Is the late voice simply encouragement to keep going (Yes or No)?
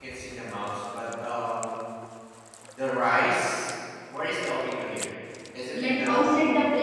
No